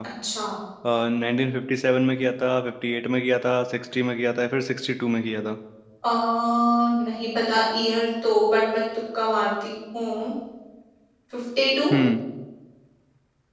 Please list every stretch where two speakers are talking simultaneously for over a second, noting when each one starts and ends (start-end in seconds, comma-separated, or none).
none